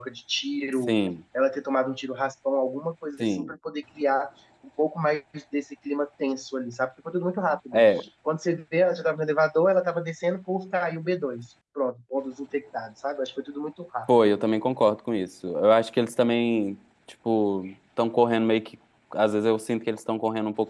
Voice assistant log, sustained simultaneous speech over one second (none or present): none